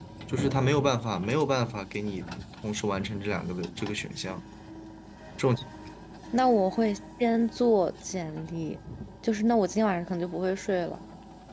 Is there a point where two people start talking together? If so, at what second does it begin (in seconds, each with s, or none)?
none